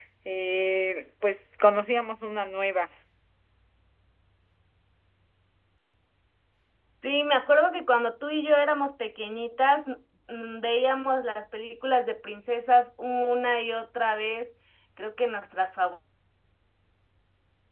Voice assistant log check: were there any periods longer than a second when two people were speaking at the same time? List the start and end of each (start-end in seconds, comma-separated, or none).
none